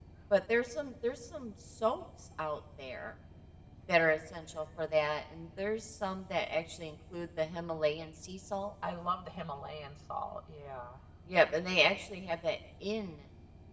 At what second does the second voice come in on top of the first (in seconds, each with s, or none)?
none